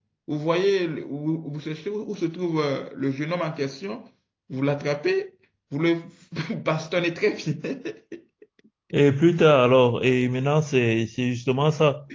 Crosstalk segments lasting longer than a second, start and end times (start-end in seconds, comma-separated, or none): none